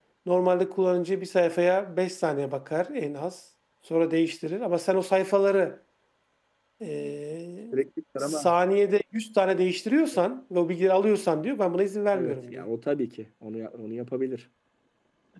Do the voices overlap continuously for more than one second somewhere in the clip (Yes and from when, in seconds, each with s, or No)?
No